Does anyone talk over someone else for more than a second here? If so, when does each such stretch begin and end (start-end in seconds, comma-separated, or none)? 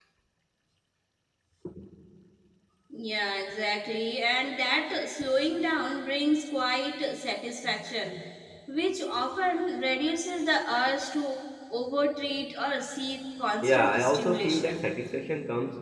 13.6-14.8